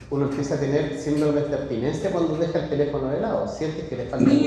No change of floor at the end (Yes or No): No